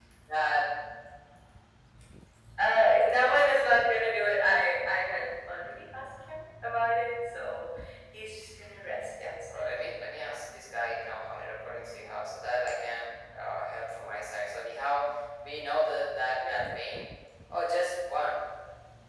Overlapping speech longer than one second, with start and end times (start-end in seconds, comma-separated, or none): none